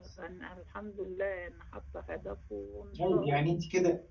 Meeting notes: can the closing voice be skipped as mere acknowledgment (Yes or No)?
No